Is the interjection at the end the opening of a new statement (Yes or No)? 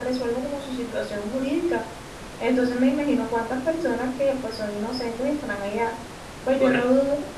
No